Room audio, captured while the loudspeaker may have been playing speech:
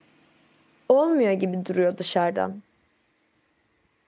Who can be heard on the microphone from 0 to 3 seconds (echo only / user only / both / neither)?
user only